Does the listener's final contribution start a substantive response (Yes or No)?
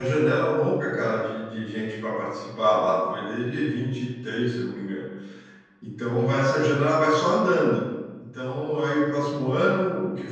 No